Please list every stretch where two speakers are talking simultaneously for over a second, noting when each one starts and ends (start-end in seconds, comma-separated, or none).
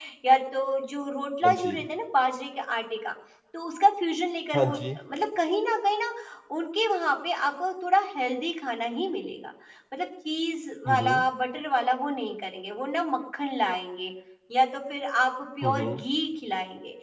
none